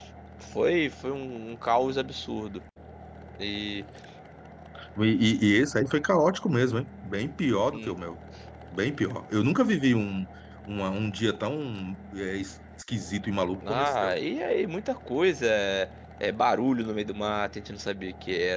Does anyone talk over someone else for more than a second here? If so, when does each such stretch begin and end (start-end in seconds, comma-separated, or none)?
none